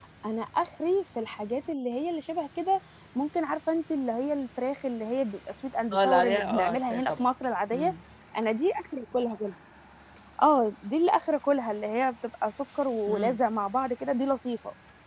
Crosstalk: present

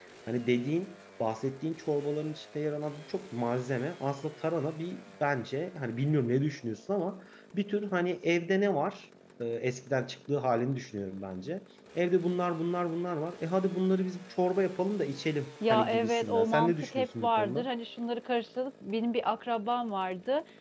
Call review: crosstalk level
present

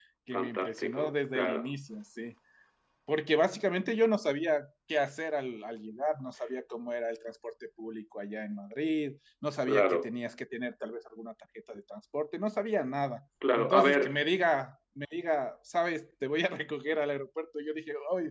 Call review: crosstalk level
present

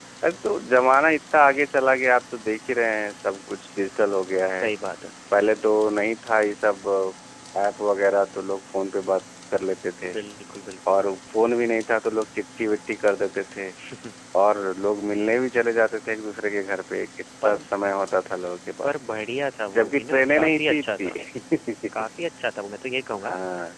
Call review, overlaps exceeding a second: present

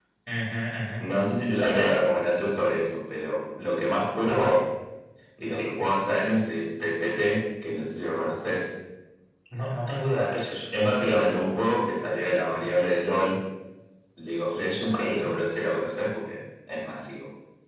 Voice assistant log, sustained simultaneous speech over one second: none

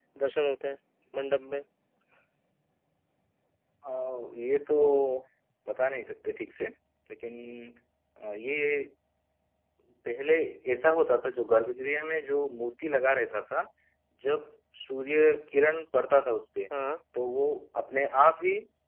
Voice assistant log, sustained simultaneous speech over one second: none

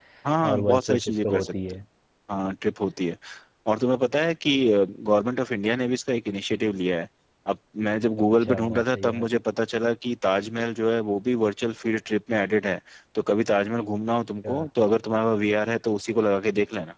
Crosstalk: present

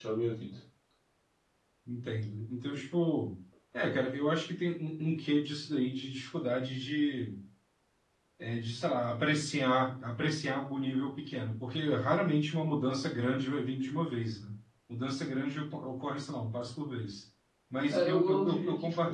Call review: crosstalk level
present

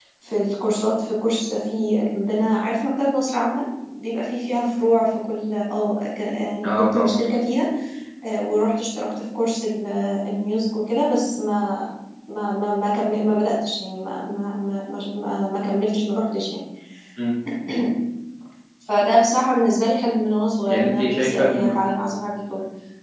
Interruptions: present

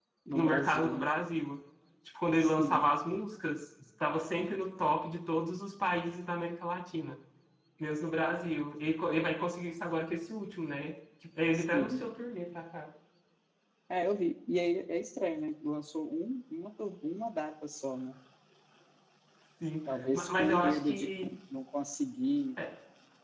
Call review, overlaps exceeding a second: present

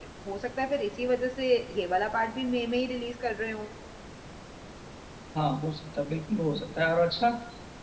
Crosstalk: none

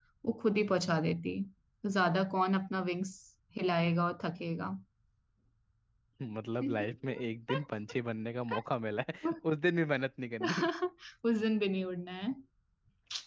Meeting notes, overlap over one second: none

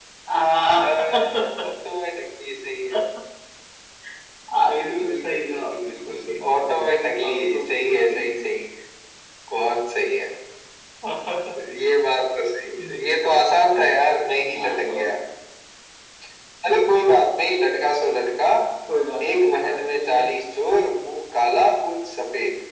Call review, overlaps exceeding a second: present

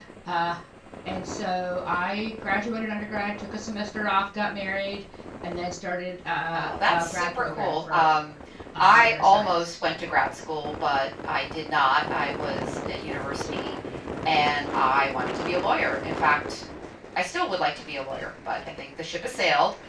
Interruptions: present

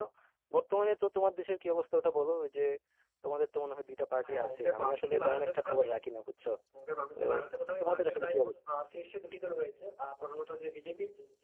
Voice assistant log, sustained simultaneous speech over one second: present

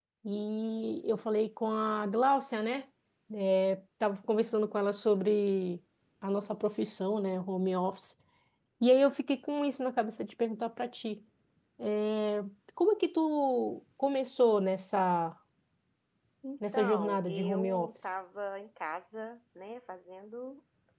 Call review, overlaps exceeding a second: present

